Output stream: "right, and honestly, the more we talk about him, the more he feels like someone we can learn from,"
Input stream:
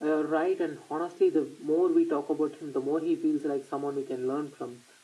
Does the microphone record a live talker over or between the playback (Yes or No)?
No